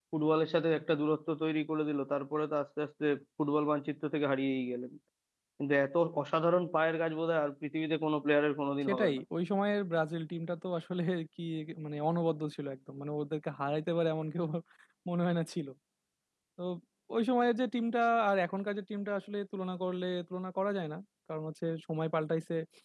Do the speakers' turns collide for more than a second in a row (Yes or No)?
No